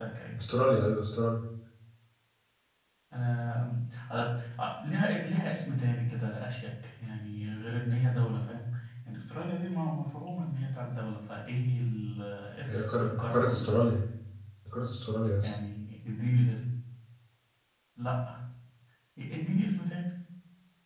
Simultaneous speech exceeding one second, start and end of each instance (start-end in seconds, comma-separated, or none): 12.7-13.9